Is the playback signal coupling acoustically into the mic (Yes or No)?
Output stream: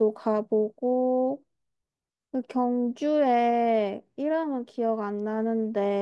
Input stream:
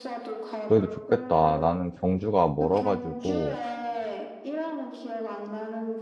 Yes